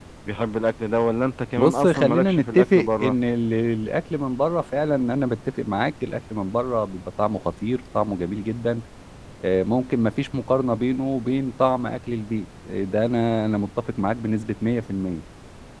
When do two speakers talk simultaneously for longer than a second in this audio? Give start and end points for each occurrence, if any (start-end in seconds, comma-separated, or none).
1.6-3.1